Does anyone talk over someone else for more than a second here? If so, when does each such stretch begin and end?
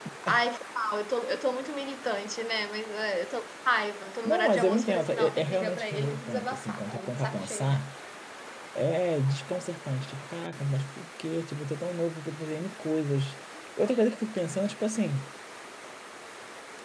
4.2-7.8

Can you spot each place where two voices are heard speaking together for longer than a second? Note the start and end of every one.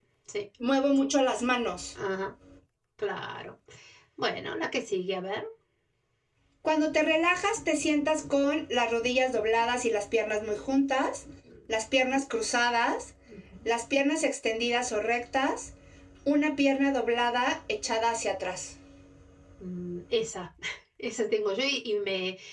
none

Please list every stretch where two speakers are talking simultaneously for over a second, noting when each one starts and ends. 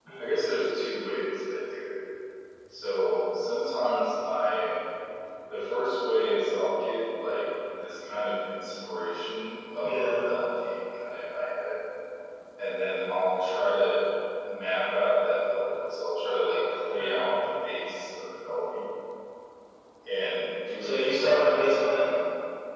20.8-22.1

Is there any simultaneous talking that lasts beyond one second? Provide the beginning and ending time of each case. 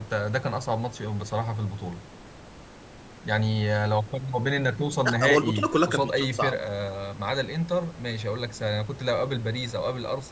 5.0-6.5

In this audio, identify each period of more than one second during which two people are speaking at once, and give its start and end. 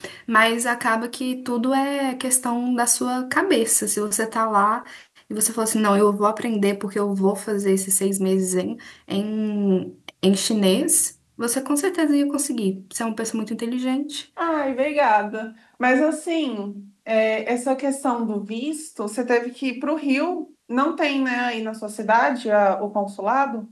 none

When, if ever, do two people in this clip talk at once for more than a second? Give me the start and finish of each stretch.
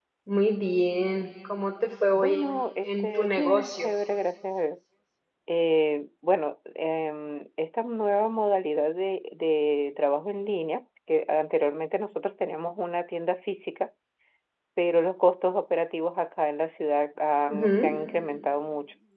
2.2-3.9

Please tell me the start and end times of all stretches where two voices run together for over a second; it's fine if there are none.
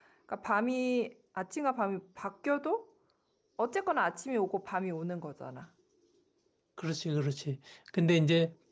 none

